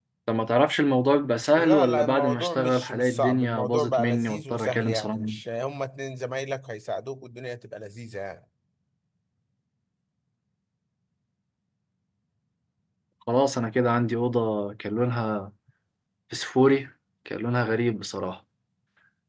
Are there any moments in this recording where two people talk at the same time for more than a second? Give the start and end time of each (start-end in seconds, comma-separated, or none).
1.6-5.3